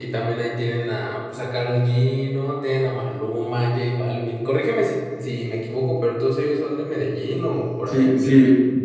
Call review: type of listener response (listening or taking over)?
taking over